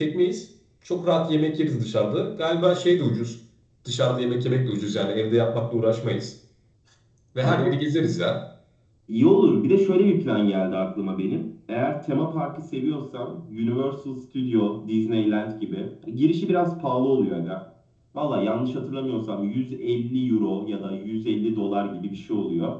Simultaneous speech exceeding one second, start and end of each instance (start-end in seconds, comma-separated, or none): none